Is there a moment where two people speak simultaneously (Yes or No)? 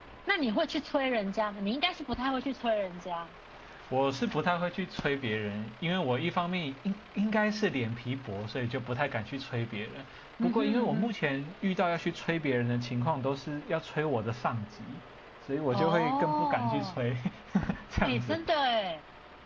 Yes